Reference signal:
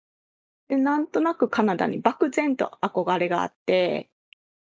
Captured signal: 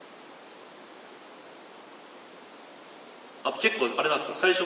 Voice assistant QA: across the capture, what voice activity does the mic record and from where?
user only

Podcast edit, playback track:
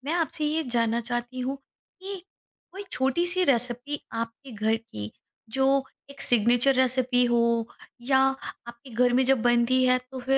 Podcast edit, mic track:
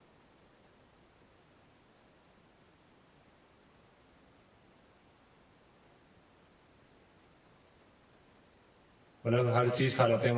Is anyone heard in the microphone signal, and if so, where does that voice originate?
user only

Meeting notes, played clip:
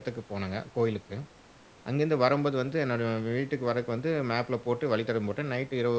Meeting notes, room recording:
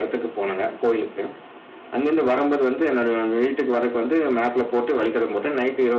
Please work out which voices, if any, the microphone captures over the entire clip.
echo only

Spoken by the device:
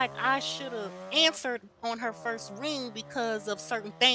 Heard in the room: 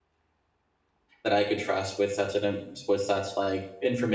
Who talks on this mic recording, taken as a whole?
user only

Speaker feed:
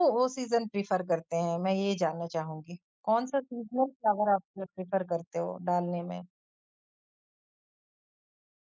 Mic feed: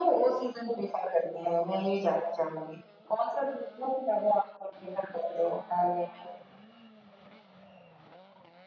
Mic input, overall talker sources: echo only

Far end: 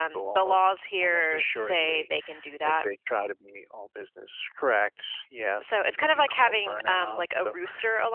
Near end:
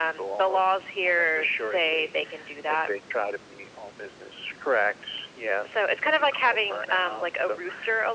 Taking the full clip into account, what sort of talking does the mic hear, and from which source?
echo only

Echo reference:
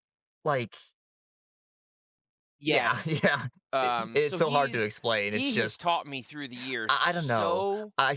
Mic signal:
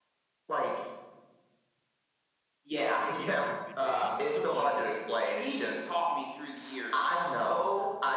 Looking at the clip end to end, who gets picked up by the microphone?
both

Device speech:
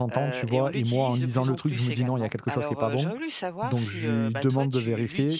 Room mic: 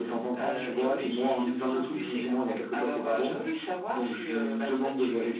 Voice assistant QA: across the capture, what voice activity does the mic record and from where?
echo only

